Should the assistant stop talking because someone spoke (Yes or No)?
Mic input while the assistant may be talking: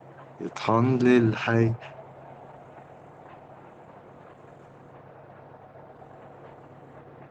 Yes